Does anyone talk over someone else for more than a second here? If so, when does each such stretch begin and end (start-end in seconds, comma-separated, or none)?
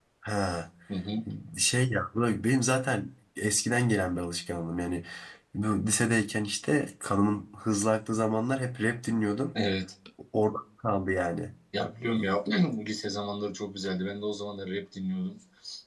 none